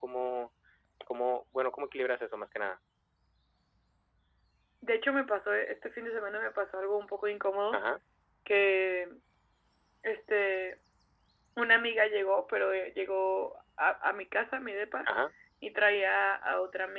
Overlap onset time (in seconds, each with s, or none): none